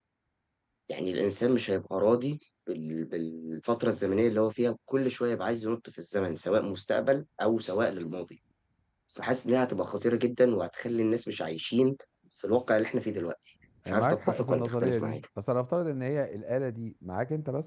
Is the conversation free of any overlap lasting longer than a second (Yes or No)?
No